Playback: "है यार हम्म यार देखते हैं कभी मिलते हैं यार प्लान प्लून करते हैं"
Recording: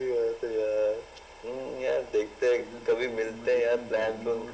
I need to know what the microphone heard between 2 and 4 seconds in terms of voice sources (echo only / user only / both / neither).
both